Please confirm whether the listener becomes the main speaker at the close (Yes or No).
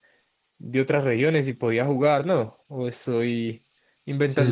Yes